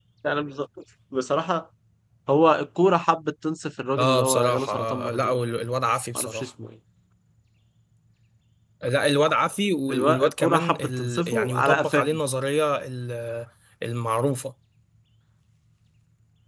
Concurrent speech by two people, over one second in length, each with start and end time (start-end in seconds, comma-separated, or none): 4.0-5.3, 9.9-12.0